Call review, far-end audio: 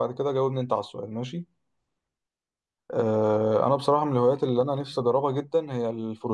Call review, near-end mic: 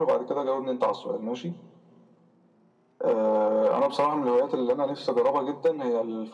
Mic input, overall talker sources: echo only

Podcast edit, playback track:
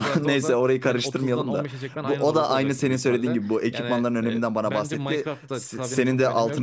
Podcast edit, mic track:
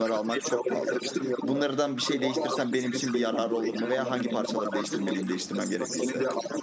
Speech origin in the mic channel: both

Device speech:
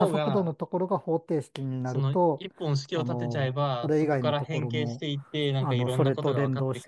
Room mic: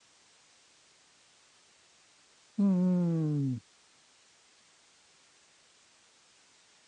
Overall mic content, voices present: user only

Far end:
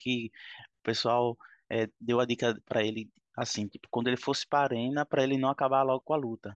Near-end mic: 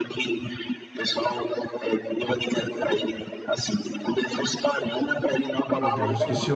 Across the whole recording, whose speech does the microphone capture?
both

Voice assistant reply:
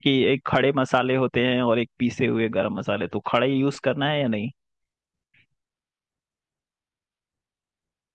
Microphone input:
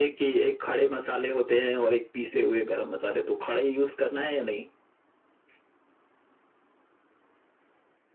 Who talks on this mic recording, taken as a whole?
echo only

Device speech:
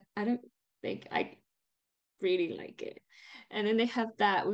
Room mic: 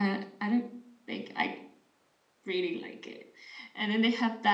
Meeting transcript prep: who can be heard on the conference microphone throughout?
echo only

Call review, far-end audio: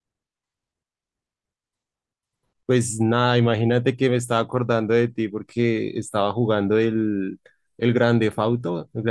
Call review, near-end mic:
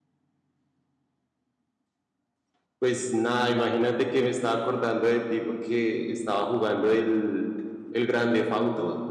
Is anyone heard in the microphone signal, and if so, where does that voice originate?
echo only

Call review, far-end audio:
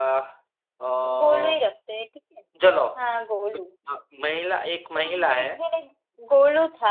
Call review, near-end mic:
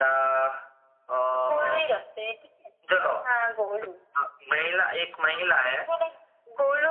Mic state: echo only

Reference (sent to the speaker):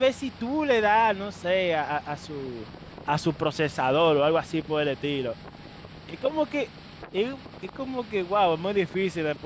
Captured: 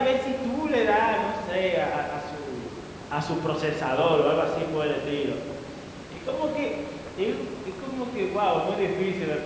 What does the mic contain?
echo only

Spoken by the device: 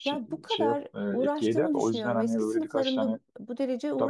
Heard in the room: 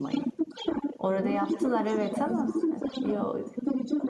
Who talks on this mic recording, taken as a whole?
both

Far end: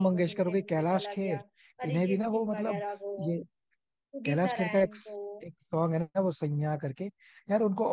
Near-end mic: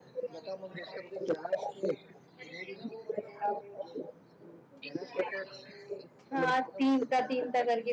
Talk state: both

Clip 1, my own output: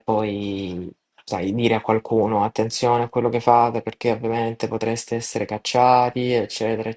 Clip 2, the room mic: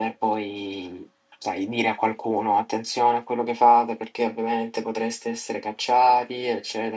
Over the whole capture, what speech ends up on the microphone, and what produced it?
echo only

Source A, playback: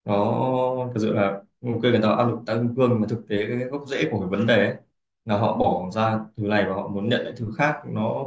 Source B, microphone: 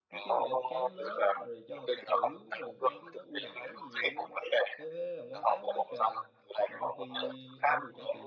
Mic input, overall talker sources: both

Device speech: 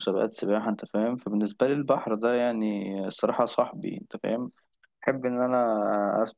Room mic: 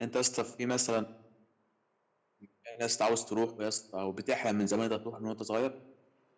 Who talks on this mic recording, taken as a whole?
user only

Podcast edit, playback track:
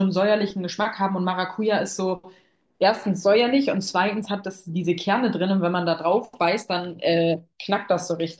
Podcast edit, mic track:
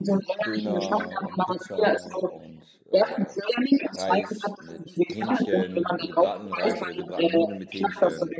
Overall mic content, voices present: both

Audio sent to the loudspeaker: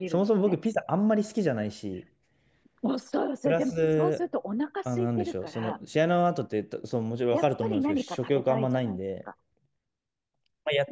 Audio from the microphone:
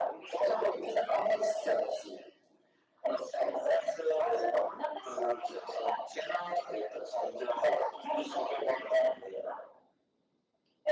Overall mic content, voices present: echo only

